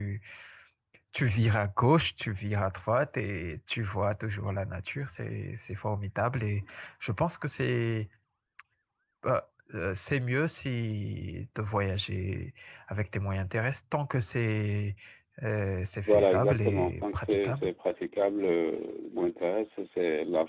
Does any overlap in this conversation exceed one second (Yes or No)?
Yes